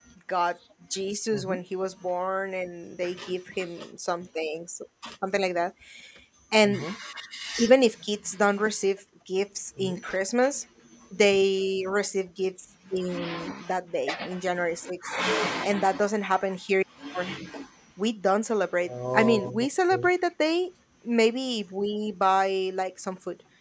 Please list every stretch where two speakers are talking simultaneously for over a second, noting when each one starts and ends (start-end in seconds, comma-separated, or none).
18.9-20.1